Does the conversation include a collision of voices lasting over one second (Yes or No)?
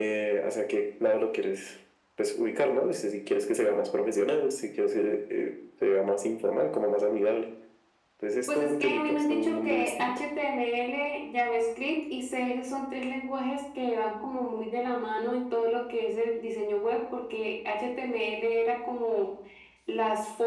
Yes